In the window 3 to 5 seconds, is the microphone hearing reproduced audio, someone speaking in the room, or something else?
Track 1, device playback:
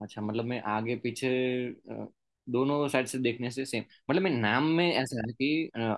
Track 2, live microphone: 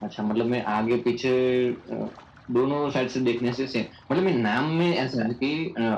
echo only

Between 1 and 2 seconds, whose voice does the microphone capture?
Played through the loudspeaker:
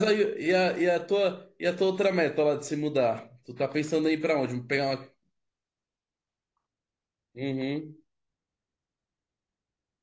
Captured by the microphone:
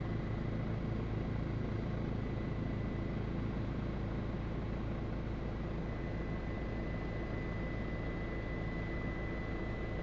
neither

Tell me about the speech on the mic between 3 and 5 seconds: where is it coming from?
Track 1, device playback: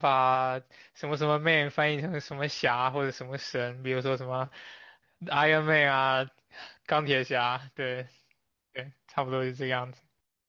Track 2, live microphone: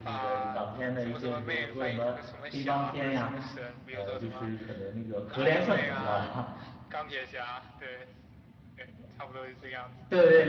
both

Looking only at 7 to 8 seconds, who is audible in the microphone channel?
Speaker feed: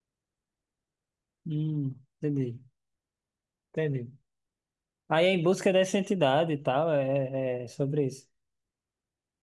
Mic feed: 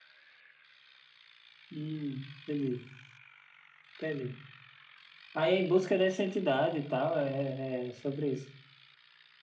echo only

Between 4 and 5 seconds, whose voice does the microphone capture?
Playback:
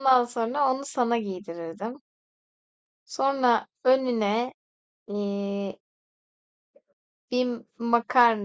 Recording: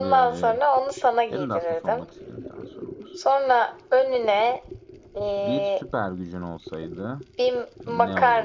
echo only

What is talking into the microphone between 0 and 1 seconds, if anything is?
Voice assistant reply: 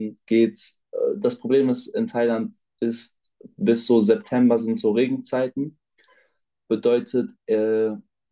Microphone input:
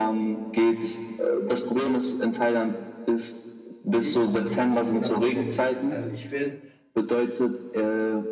echo only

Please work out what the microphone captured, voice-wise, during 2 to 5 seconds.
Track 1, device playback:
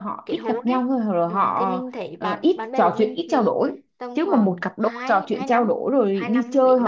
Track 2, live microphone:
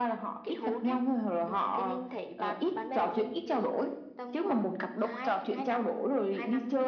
echo only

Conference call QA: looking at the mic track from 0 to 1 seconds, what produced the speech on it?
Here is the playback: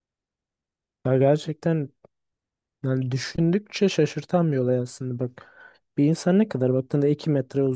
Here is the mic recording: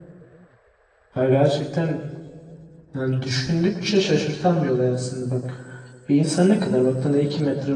neither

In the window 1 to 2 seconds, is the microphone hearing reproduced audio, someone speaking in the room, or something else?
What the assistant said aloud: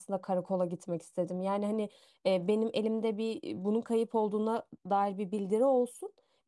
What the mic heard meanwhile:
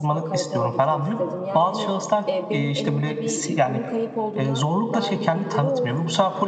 both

